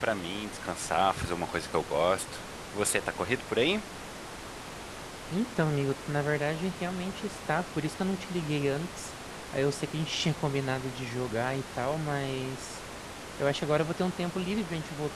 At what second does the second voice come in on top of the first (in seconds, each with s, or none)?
none